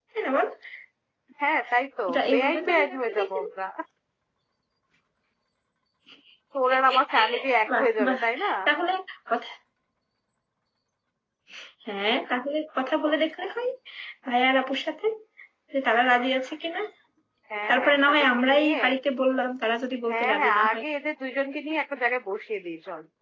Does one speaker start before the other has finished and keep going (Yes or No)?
Yes